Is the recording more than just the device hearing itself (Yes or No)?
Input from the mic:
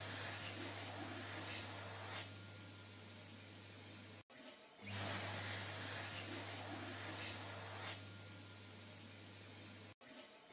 No